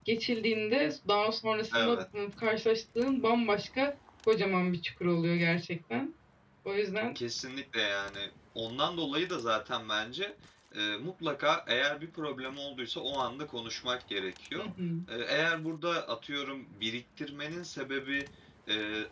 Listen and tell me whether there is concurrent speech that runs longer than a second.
No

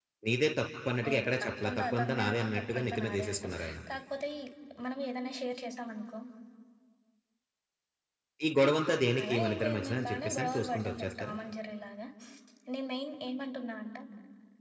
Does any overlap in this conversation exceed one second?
Yes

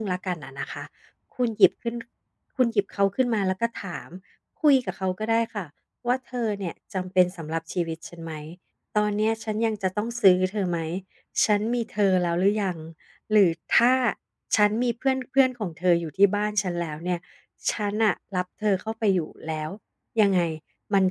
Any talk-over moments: No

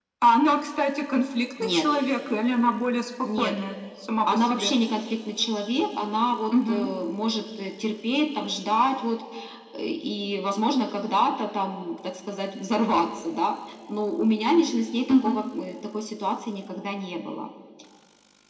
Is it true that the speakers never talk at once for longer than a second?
Yes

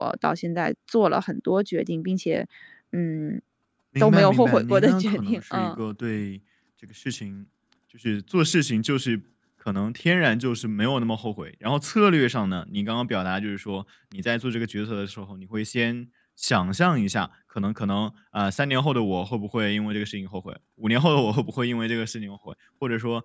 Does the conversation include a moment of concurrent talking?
Yes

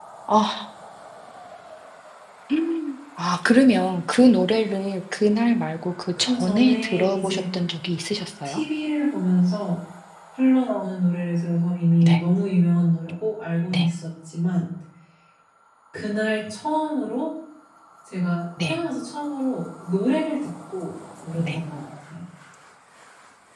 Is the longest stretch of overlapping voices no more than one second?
No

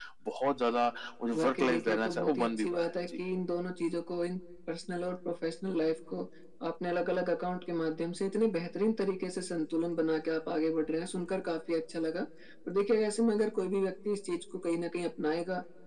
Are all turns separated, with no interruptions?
No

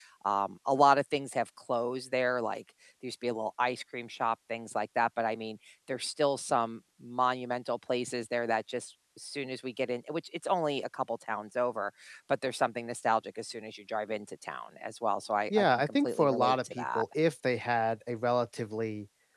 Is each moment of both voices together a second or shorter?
No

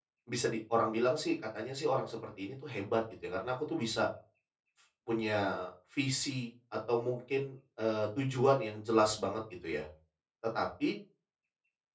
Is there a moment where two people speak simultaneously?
No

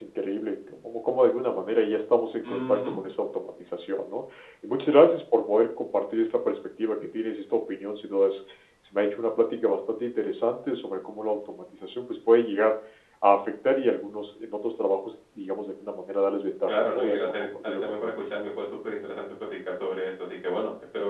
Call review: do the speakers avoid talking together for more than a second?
No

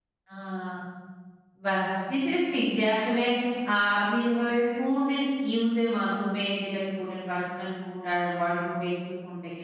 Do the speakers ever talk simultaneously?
No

